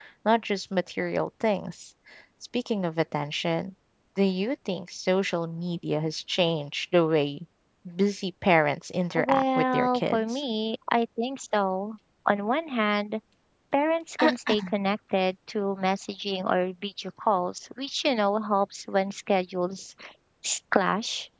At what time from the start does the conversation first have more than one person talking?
9.2 s

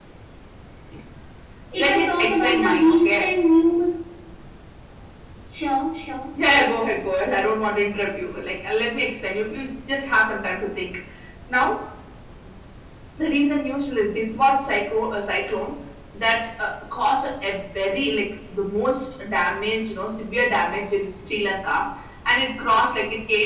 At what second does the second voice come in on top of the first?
1.8 s

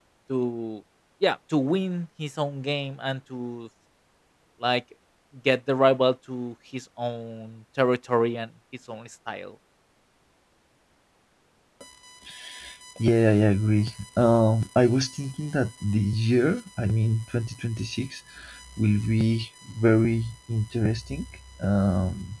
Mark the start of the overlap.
none

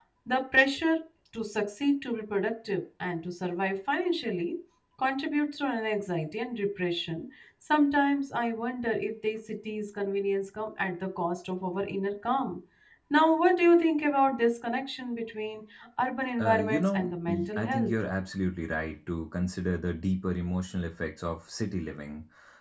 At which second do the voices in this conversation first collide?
16.4 s

